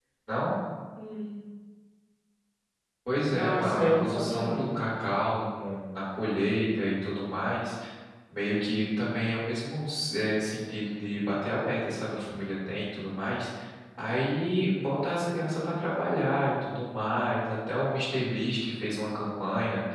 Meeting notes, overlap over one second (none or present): present